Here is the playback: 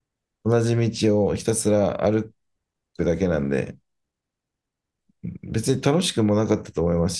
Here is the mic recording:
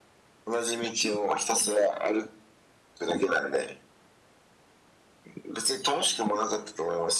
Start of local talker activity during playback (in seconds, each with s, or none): none